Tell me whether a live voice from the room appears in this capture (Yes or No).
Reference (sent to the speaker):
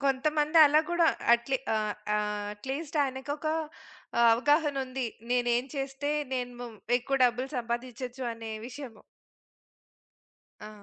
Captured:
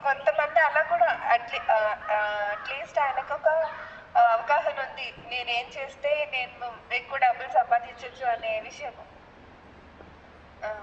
No